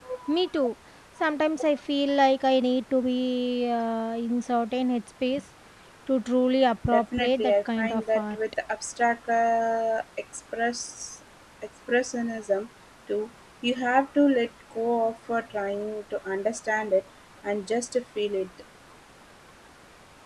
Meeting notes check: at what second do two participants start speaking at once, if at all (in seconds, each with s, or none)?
6.9 s